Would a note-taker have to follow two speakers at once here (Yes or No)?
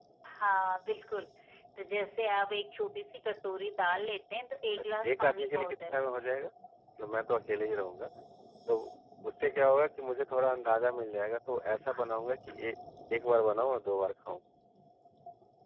Yes